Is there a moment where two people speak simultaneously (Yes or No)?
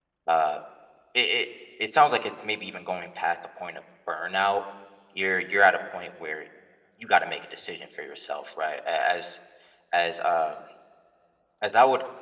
No